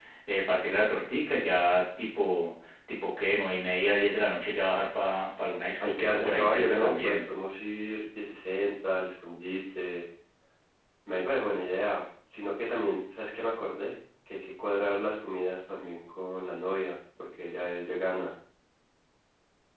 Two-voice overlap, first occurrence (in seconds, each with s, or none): 5.8 s